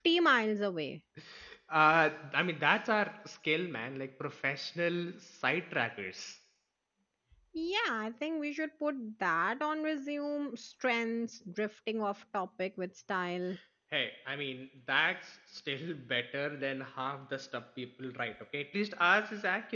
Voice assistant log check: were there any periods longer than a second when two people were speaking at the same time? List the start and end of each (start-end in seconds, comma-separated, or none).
none